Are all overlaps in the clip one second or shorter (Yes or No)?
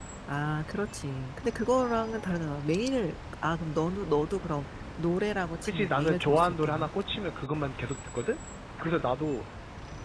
No